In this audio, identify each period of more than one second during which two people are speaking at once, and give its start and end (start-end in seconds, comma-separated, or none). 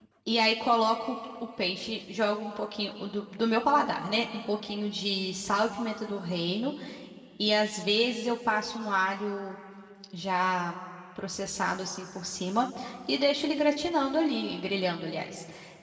none